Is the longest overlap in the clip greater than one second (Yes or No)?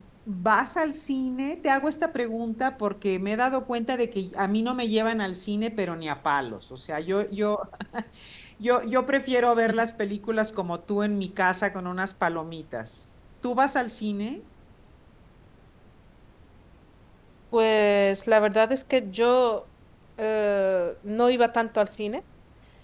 No